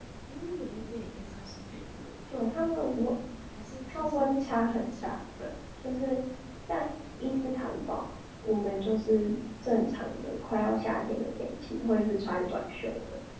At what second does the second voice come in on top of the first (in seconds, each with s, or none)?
3.9 s